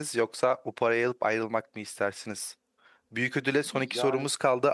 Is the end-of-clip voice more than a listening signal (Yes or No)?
No